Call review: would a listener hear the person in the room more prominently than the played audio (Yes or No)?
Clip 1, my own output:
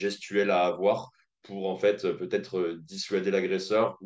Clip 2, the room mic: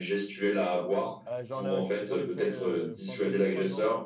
No